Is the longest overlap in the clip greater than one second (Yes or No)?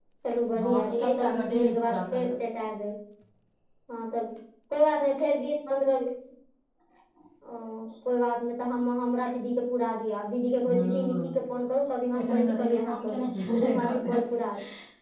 Yes